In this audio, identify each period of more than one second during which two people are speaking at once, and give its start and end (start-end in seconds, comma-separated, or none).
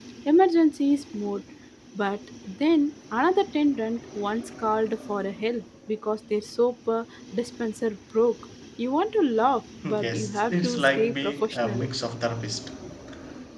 10.0-11.8